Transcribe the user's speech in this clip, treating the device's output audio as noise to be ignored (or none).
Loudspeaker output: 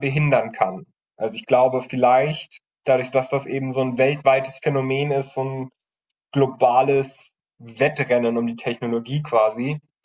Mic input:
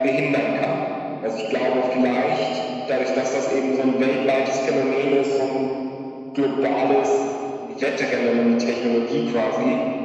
none